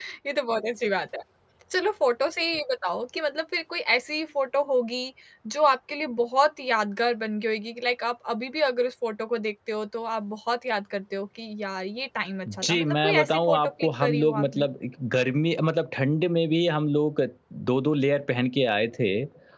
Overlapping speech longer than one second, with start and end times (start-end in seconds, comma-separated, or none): 12.6-14.7